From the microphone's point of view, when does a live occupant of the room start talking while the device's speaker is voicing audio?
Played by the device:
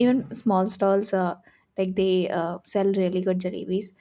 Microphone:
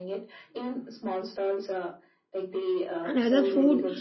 3.0 s

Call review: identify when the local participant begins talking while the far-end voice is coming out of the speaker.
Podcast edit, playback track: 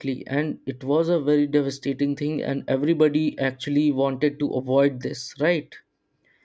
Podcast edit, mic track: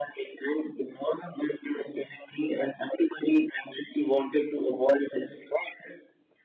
none

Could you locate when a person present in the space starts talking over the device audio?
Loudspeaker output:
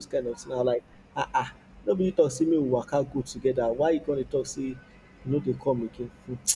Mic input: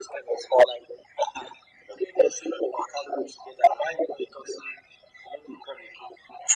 none

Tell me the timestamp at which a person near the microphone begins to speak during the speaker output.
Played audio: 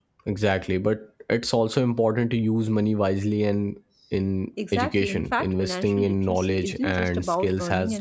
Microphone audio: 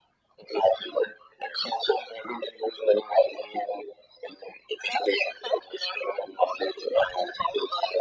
none

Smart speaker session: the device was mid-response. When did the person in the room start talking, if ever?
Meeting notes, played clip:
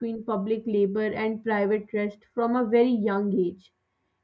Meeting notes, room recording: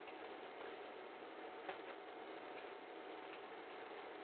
none

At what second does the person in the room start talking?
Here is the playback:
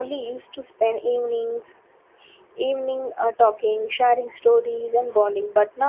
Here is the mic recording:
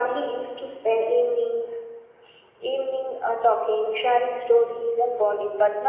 none

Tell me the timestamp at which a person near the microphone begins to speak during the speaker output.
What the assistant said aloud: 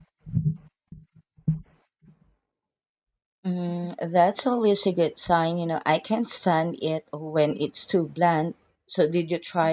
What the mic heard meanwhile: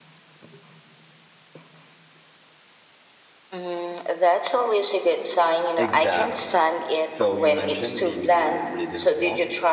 5.8 s

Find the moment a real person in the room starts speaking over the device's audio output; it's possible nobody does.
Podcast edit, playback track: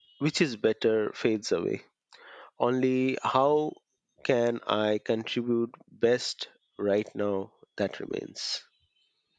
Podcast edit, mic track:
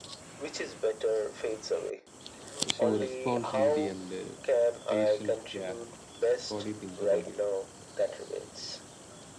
2.7 s

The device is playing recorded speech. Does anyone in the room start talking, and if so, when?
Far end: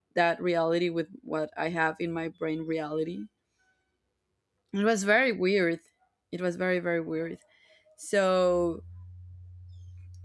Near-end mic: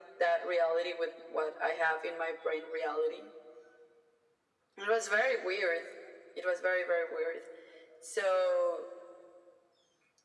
none

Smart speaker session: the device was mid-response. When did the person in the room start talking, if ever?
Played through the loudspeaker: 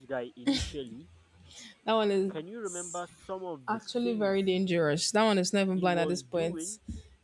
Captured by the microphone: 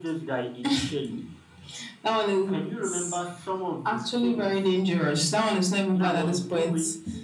5.9 s

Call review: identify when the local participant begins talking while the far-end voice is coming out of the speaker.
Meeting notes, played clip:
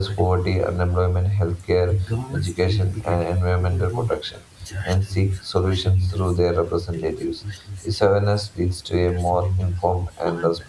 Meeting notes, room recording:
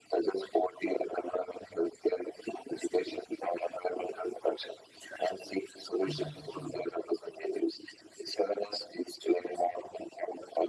6.0 s

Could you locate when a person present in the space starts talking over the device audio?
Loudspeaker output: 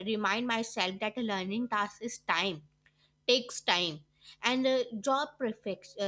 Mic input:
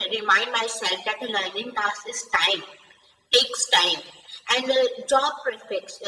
none

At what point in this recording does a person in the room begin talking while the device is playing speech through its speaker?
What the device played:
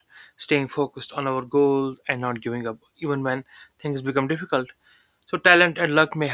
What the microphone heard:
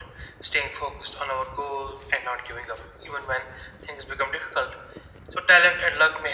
none

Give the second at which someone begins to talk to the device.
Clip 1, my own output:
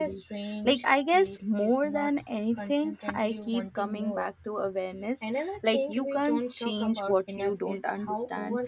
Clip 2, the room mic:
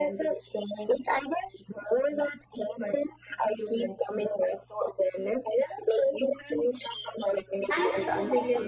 7.7 s

